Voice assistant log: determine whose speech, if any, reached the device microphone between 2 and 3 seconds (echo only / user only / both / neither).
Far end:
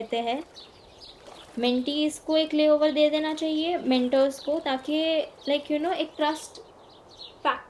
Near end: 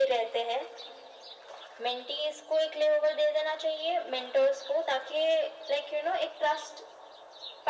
echo only